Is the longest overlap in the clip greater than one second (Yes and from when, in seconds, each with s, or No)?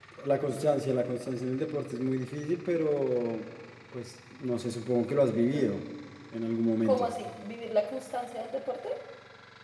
No